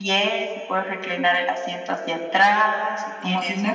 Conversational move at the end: listening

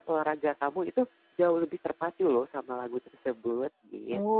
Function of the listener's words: taking over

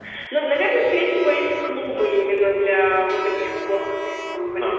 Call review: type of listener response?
listening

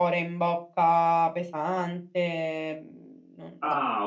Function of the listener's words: taking over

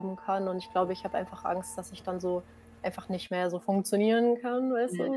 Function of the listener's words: taking over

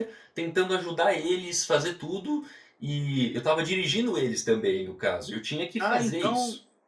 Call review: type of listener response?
taking over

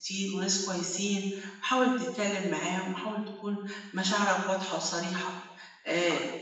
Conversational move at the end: listening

